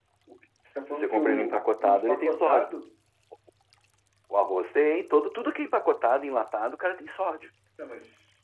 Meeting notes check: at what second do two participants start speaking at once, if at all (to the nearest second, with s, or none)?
1 s